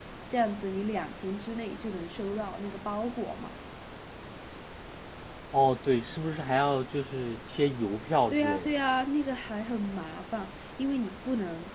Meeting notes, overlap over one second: none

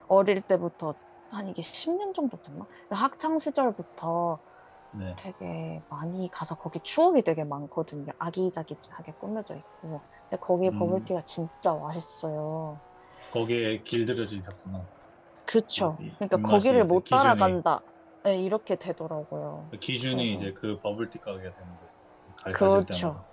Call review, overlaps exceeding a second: present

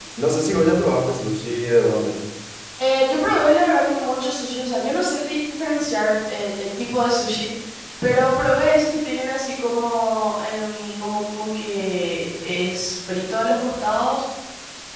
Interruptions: none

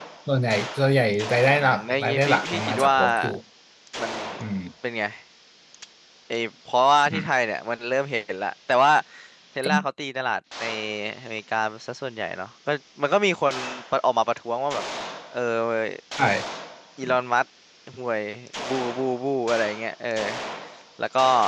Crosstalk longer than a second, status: present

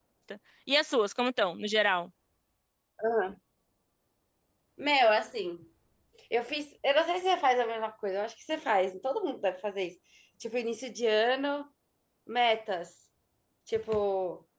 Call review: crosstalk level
none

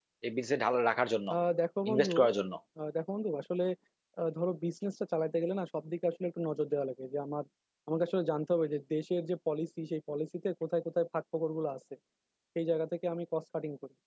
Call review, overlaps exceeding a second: none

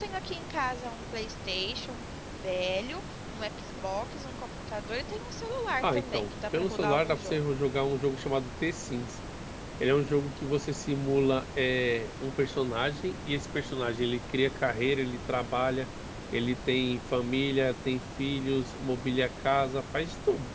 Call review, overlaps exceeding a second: present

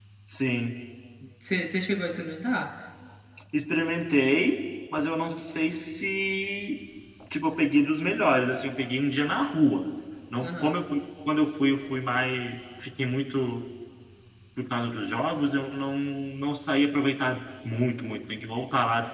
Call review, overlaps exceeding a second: none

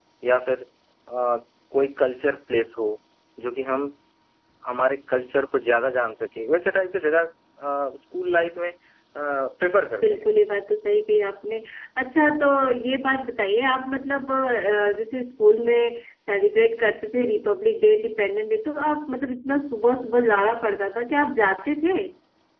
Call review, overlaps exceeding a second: none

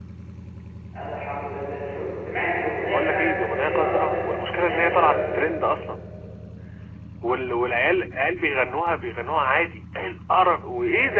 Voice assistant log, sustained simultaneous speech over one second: present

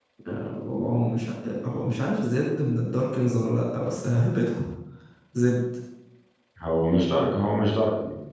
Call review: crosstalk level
none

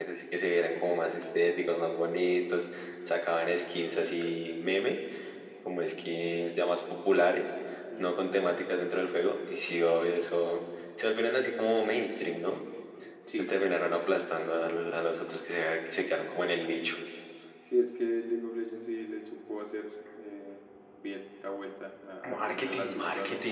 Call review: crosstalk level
present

